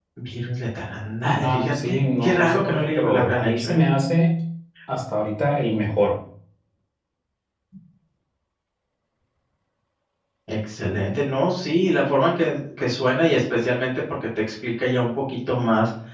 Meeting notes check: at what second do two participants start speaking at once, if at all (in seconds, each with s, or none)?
1.2 s